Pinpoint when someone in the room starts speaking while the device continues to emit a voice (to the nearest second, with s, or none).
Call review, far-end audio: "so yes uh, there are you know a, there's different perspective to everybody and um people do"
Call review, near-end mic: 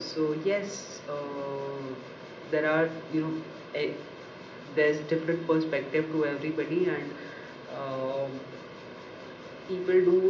none